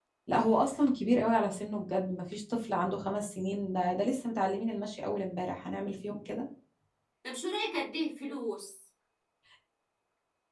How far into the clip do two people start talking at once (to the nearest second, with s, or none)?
none